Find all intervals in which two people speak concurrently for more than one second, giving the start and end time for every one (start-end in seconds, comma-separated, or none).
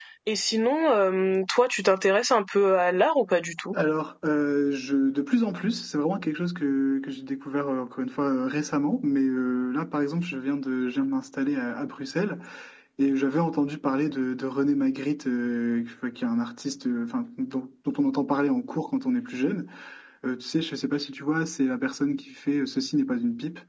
none